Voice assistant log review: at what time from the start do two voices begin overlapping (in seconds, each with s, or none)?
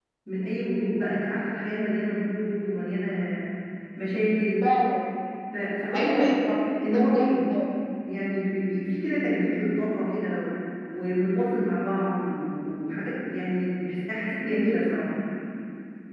6.0 s